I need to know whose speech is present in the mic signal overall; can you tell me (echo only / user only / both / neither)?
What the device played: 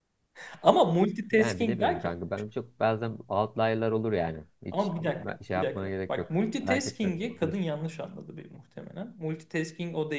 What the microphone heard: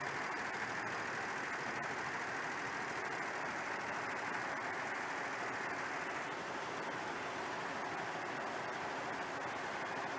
neither